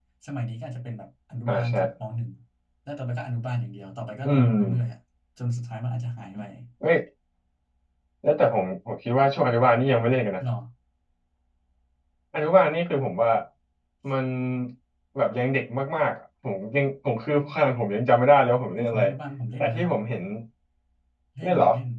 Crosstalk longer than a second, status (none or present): none